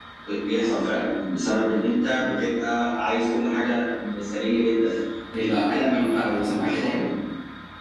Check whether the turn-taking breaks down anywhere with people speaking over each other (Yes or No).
Yes